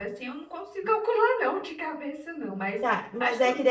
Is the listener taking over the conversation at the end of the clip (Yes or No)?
Yes